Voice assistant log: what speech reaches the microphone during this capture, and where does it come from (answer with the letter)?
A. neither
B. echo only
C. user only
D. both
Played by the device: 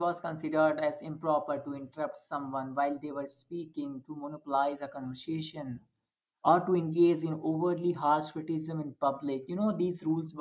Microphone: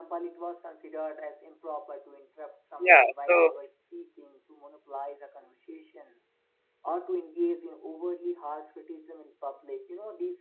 D